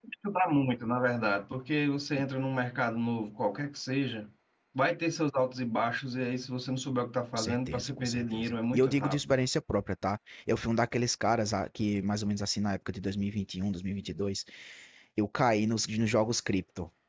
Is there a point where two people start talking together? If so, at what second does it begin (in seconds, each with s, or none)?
7.4 s